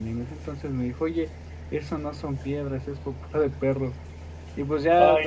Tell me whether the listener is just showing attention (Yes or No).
Yes